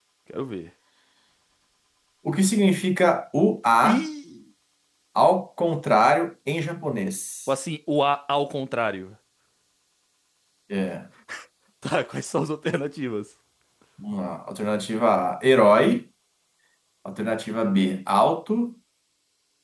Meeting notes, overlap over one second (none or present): none